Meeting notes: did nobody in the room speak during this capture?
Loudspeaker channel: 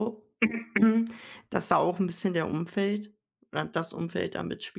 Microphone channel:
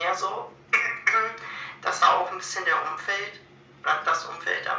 Yes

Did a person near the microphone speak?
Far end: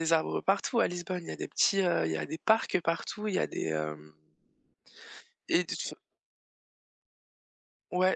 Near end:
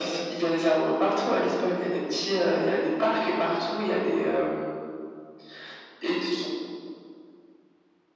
No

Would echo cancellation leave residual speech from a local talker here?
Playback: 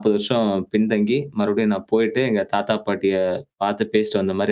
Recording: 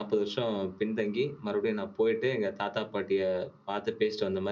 No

